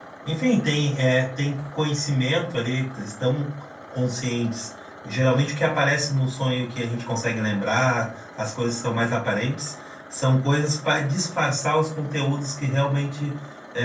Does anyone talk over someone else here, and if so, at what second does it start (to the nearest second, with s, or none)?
none